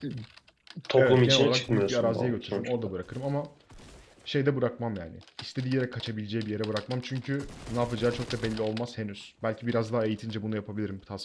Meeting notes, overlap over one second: present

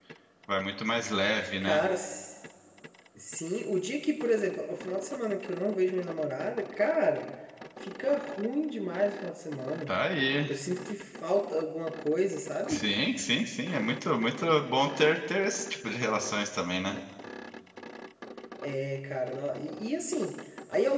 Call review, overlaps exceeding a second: none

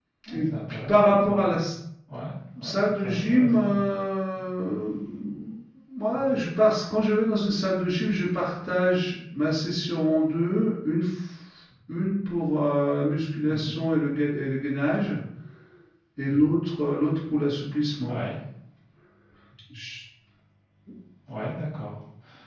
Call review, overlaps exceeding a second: present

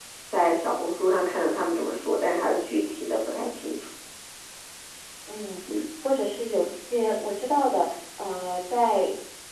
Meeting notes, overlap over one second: none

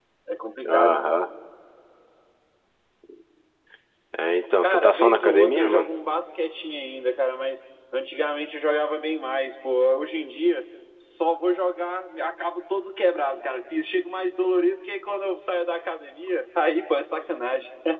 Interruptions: present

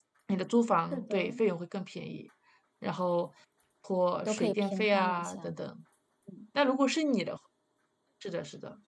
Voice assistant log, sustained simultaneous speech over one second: present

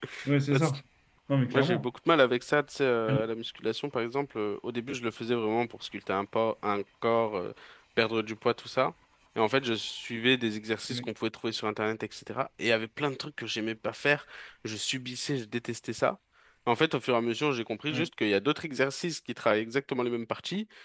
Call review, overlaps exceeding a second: none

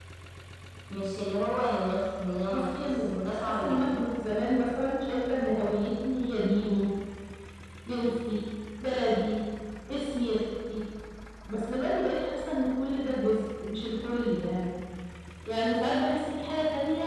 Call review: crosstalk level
present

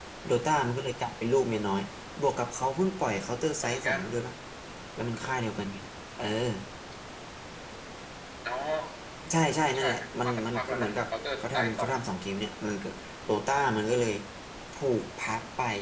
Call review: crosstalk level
present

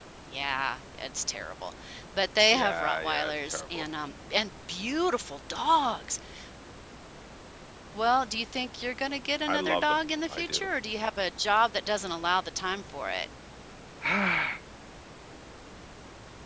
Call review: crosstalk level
present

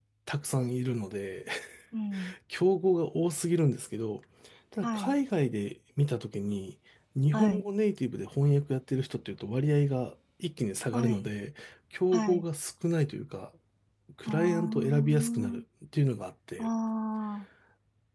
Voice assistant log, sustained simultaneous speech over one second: present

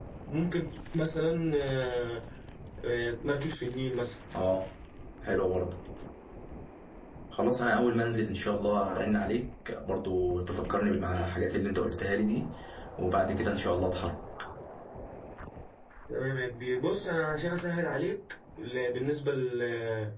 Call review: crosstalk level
none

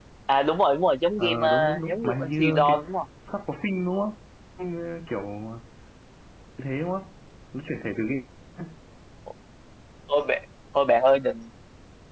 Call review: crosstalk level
present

